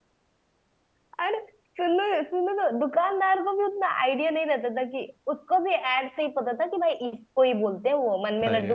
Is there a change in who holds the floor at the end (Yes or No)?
No